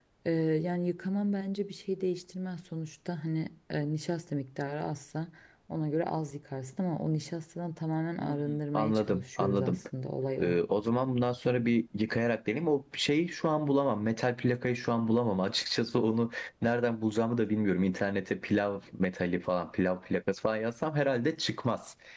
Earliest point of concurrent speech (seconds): 8.2 s

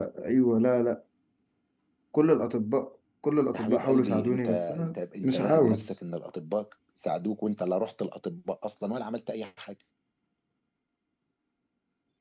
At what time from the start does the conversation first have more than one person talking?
3.5 s

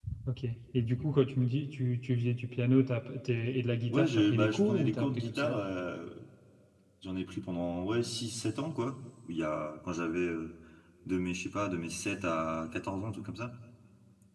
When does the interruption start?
3.9 s

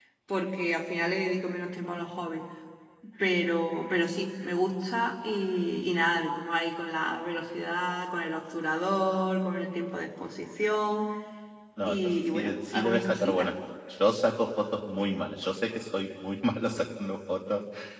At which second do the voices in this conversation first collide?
11.8 s

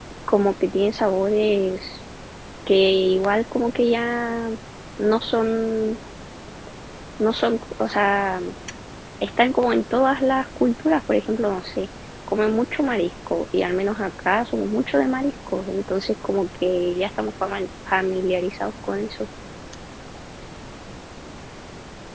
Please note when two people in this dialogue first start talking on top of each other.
none

